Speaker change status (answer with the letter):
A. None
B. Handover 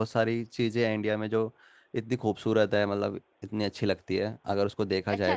B